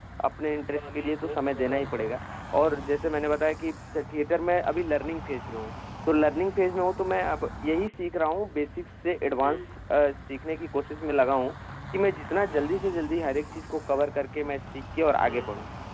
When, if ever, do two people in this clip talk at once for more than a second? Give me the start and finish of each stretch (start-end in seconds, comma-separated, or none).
0.7-2.2